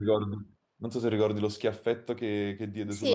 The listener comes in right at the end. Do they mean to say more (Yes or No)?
Yes